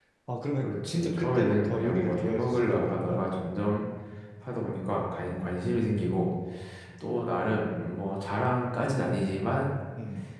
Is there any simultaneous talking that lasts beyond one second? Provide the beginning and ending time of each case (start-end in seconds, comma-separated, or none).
0.6-3.3